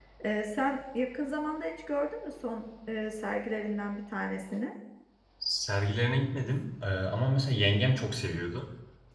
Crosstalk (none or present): none